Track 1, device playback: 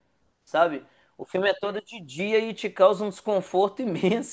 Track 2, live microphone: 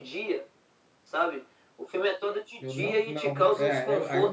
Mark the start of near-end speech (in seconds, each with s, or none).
2.6 s